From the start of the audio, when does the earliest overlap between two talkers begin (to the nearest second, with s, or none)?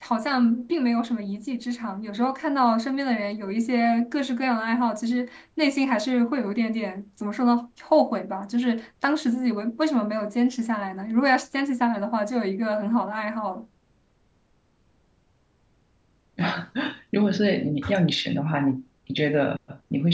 none